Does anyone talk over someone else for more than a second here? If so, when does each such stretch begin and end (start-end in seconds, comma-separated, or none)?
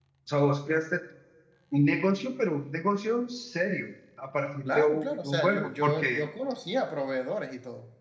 4.6-6.2